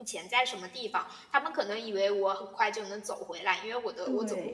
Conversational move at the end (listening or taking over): listening